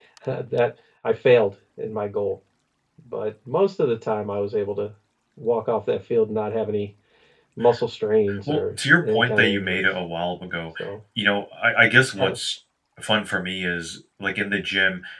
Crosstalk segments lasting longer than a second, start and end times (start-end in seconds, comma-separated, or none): 8.5-9.8